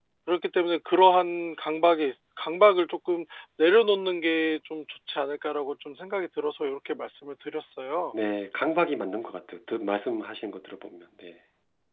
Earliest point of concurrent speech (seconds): none

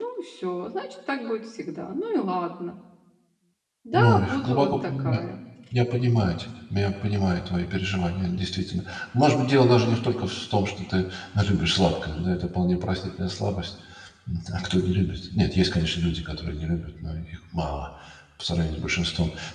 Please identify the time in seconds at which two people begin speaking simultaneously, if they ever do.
4 s

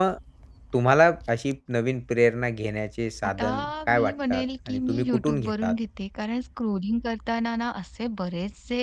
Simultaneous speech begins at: 3 s

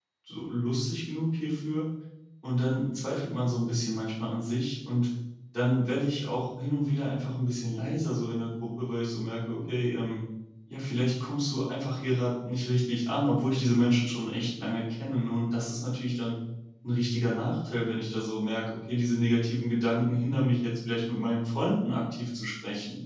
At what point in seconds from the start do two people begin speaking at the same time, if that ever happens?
none

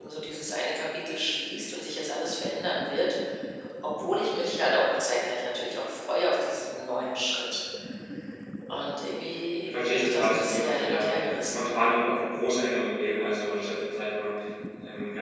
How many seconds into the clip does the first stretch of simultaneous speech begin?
10 s

